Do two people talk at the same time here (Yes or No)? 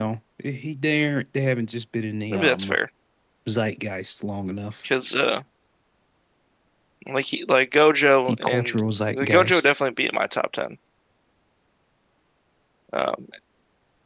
Yes